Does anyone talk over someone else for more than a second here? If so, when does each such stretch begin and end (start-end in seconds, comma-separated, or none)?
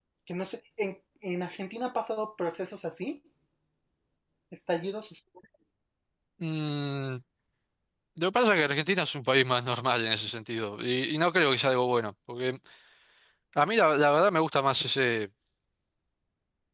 none